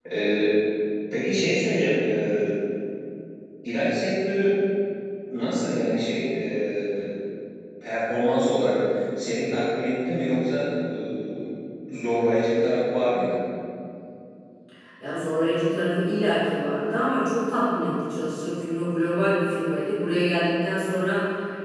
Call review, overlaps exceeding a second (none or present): none